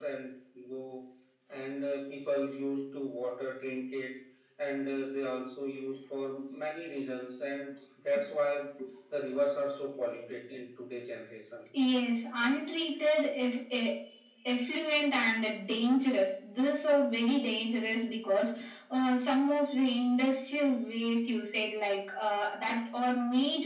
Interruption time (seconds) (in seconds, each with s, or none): none